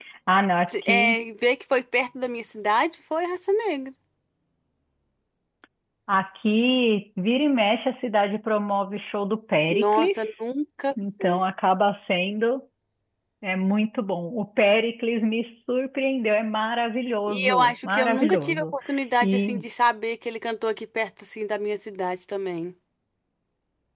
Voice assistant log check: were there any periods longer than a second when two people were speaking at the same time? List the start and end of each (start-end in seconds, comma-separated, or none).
17.3-18.6